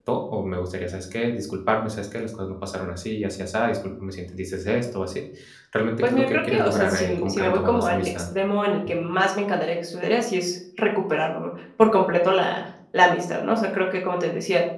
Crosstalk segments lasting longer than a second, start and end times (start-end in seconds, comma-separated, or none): 6.0-8.1